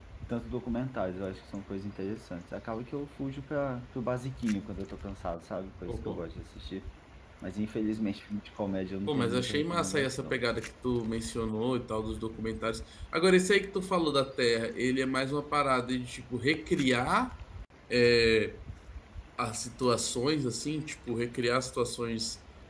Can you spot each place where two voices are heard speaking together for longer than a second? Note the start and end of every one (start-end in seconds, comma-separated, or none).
9.1-10.4